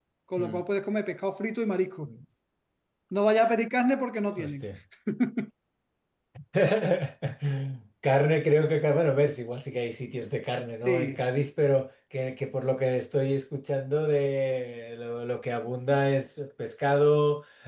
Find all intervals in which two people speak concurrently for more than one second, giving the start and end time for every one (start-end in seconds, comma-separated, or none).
none